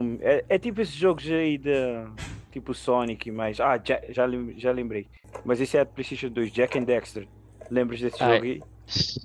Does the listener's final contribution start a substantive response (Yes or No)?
Yes